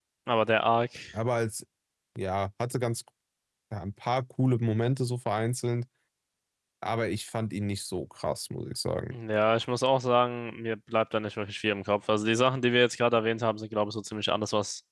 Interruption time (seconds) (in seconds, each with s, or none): none